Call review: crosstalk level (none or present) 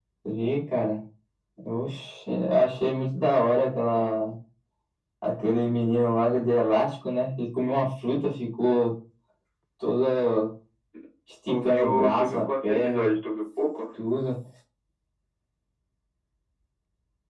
present